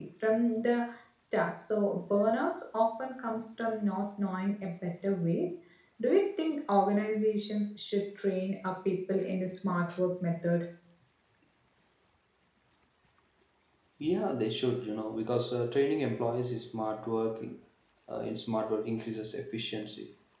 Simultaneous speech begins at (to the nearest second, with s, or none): none